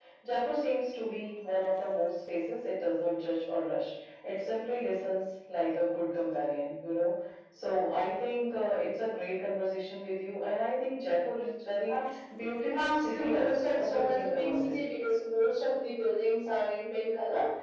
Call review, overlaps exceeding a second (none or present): present